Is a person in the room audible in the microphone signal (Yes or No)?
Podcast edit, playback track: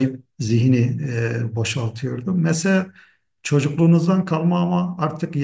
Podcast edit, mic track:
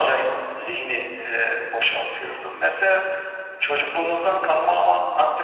No